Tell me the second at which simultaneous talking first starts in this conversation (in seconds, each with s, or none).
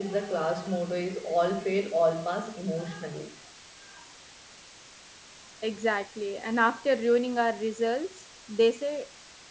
none